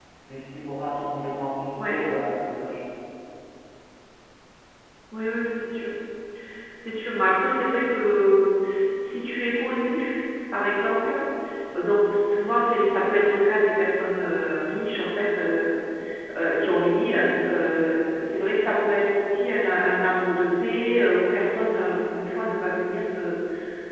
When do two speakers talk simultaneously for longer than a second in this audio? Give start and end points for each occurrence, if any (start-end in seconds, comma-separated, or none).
none